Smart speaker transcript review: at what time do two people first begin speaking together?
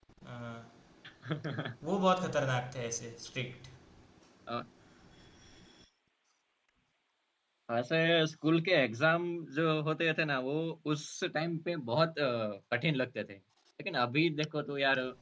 none

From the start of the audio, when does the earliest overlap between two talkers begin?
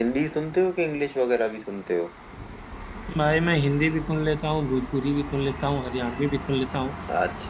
none

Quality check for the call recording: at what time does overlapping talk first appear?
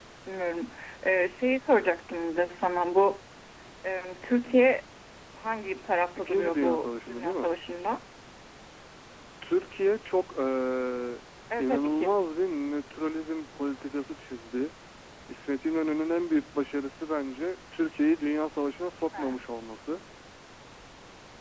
6.2 s

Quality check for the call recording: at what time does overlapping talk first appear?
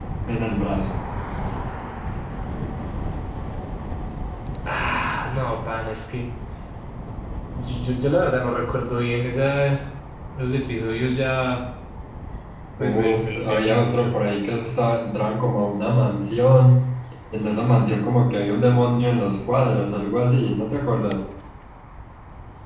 12.8 s

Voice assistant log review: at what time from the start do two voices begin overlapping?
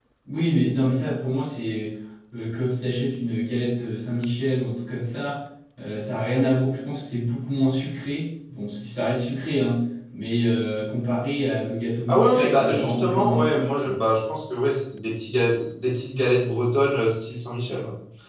12.1 s

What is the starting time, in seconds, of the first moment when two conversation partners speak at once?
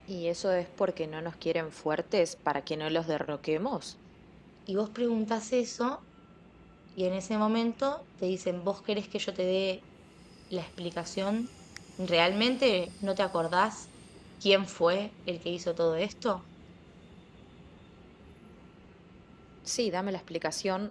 none

